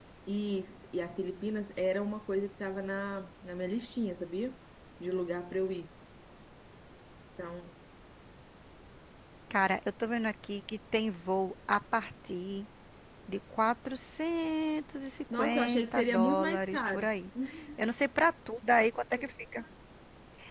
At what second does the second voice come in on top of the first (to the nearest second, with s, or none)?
15 s